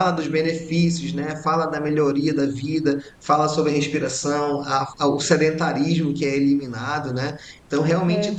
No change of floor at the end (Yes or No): Yes